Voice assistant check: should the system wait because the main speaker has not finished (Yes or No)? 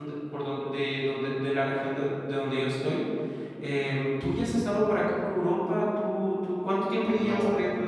No